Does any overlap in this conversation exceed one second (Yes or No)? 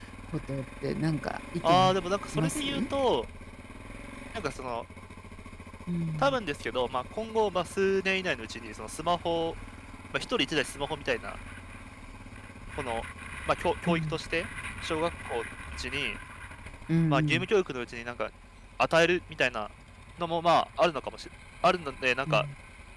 No